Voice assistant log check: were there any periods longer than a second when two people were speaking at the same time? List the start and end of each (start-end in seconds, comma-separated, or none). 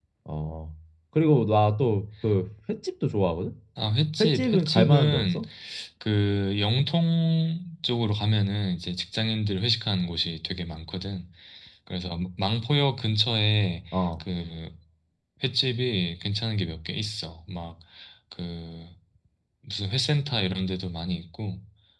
4.2-5.4